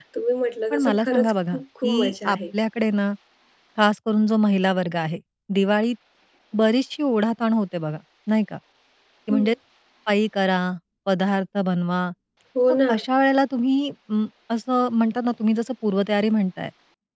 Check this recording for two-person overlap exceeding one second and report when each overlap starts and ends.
0.7-2.4

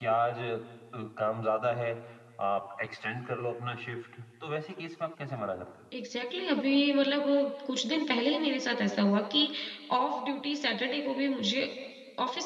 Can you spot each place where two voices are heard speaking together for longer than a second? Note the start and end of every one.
none

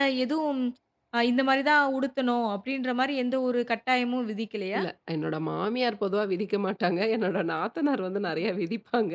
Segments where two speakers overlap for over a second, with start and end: none

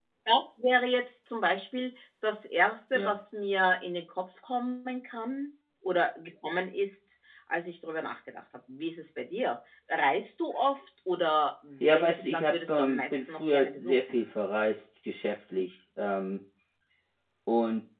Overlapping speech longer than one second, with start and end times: 11.8-14.2

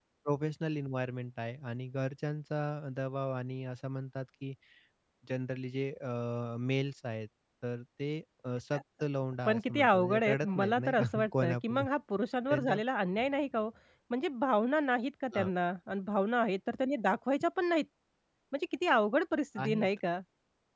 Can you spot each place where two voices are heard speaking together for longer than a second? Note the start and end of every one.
9.4-11.8

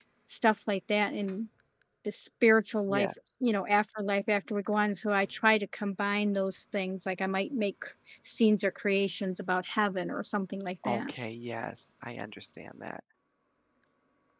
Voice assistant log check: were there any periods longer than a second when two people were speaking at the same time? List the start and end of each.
none

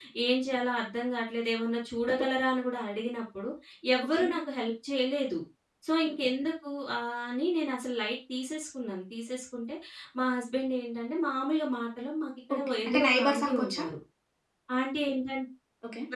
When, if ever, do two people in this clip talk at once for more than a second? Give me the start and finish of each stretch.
12.6-13.8

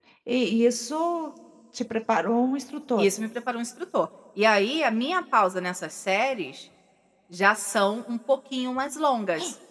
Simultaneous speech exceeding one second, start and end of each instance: none

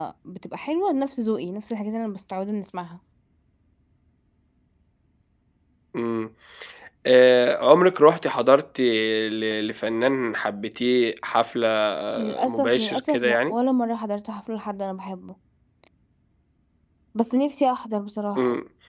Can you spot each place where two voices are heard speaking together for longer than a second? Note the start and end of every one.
12.2-13.6

